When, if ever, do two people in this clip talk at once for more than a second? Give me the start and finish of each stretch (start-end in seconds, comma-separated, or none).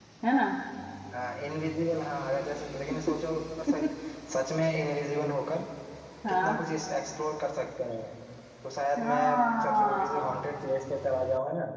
9.0-10.3